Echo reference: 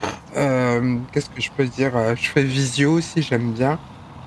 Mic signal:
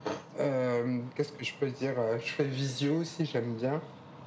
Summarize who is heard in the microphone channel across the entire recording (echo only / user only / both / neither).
echo only